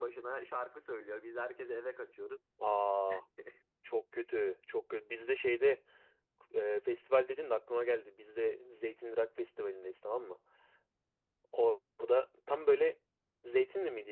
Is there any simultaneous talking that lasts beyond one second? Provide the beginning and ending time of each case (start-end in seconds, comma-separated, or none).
none